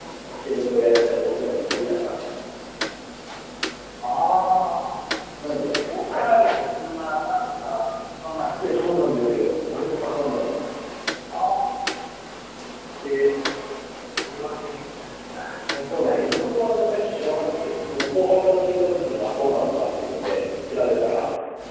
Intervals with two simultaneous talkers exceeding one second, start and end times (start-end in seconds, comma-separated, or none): none